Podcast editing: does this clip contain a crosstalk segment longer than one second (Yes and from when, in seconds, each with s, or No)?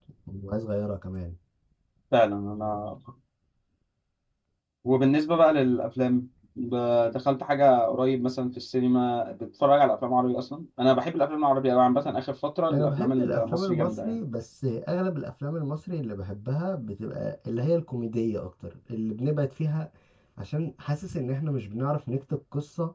Yes, from 12.7 s